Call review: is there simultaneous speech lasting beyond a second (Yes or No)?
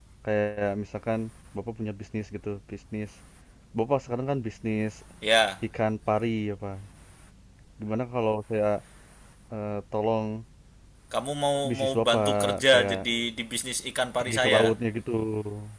Yes